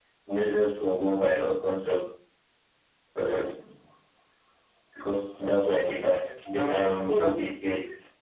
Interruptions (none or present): present